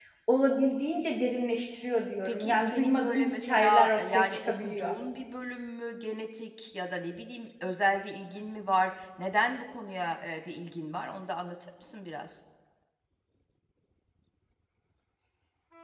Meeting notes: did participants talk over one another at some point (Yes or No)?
Yes